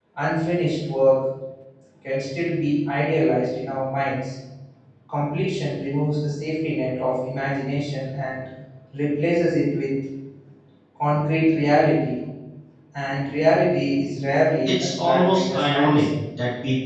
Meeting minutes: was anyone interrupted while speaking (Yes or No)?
Yes